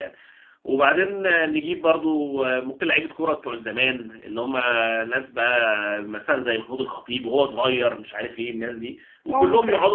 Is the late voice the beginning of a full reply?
No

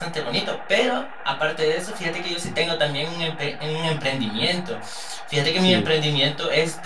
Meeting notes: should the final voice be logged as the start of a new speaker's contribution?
No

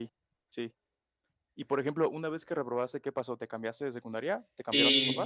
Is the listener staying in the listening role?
No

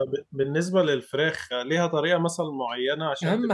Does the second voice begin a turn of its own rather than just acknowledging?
Yes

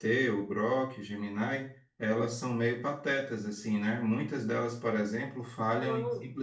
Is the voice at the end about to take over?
No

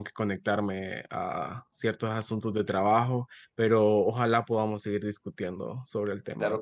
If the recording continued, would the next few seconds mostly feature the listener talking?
Yes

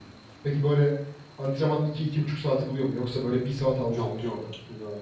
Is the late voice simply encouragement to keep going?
No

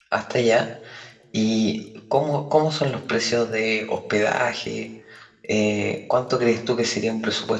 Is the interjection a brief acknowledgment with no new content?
Yes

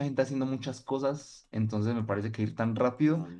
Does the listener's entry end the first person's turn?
No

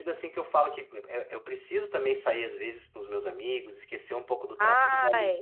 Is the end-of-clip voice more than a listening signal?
No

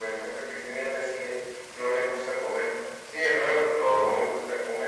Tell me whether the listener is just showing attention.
Yes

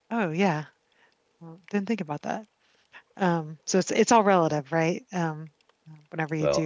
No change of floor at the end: No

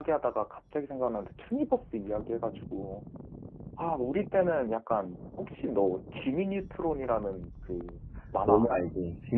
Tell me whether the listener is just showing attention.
No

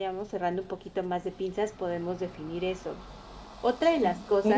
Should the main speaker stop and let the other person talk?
No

